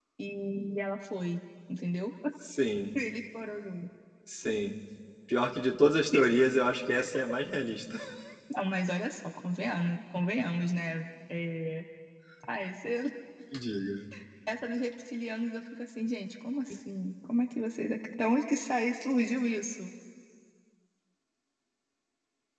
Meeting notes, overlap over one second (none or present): none